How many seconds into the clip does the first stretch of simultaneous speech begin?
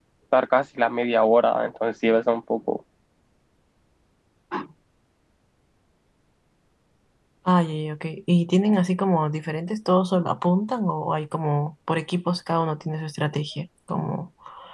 none

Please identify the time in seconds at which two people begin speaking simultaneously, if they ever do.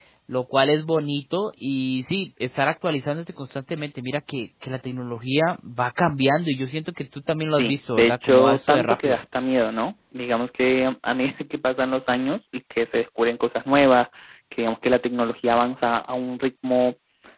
8 s

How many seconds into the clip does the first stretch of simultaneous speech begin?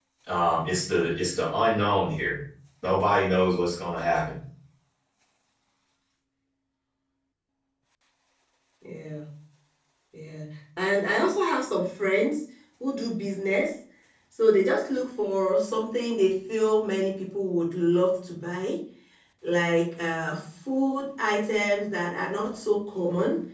none

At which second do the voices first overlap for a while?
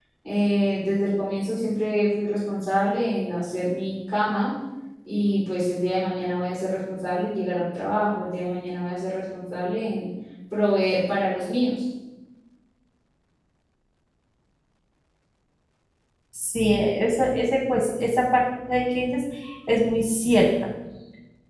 none

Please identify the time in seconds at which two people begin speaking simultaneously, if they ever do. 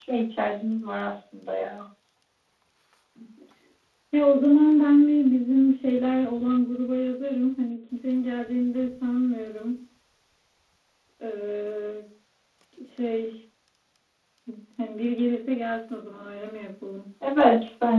none

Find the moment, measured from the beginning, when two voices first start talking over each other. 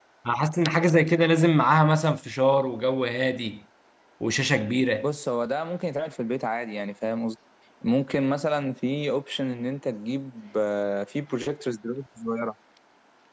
none

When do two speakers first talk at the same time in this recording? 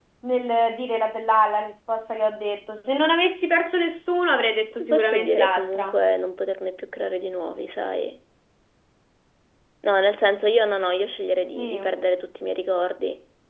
5 s

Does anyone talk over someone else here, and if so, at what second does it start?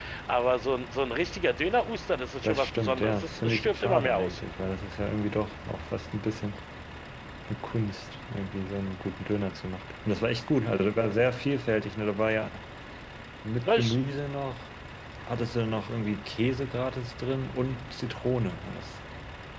2 s

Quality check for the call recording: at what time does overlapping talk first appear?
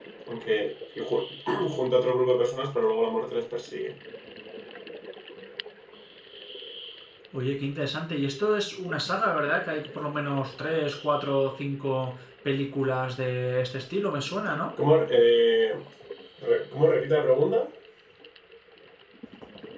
none

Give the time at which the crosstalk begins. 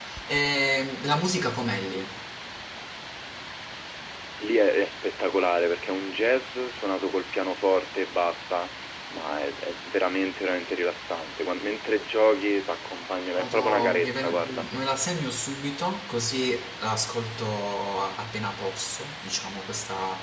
13 s

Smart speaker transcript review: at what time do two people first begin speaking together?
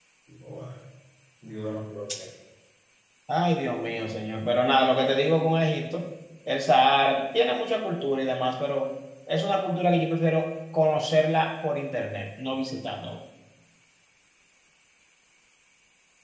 none

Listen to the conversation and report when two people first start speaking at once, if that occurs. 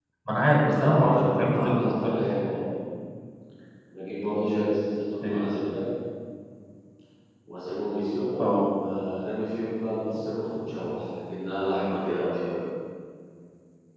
1 s

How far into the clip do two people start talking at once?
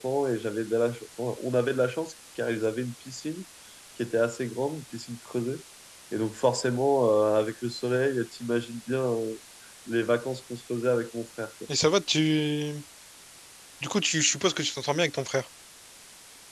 none

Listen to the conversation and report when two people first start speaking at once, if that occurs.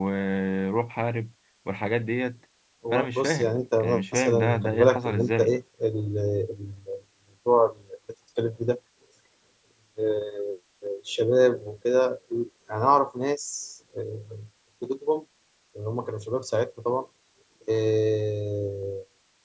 3 s

